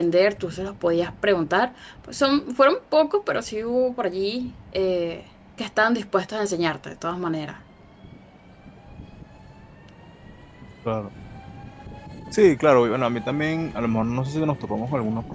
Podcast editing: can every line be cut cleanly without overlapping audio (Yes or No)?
Yes